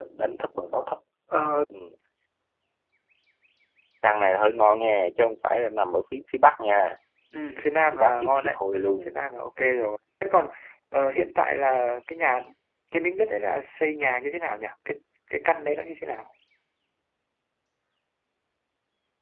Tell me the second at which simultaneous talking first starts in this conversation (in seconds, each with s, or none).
7.9 s